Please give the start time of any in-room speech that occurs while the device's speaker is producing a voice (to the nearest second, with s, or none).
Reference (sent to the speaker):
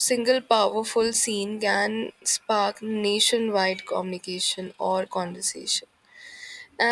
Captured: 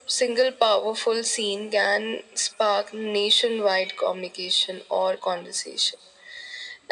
none